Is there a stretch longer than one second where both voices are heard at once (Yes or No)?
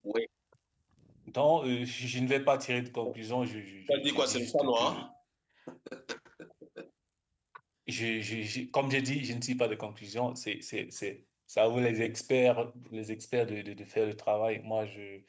Yes